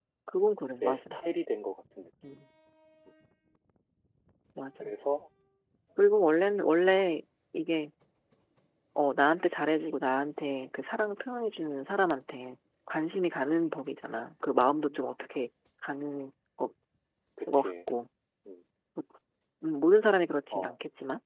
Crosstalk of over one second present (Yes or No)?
No